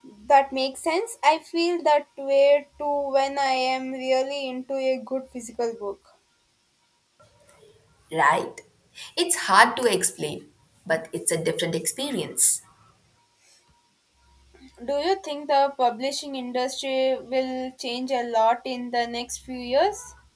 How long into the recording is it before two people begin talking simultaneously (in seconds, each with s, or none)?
none